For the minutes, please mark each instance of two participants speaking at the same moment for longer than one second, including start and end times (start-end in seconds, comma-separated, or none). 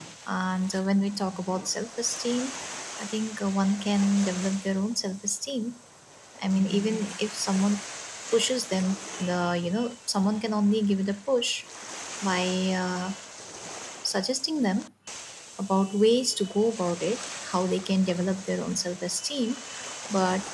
none